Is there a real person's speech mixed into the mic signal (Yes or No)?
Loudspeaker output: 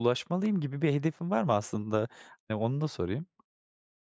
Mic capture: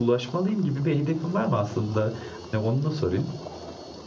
No